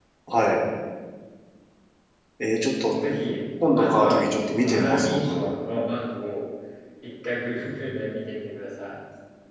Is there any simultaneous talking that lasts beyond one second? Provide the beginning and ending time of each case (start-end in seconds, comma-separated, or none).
3.7-5.5